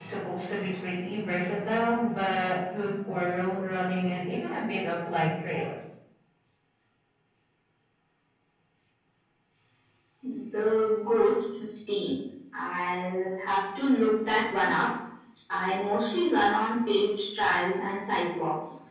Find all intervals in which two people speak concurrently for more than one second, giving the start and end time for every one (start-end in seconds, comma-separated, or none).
none